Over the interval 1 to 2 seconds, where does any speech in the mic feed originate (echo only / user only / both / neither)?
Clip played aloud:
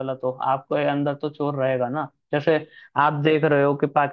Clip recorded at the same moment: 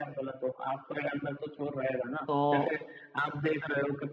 echo only